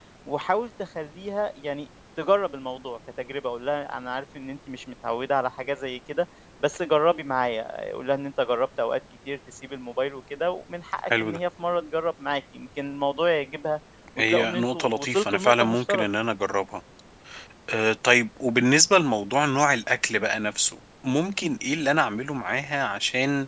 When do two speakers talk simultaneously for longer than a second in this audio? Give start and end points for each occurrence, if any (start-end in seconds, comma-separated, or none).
14.2-16.0